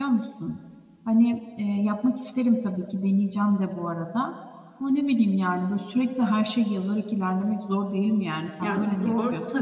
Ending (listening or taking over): taking over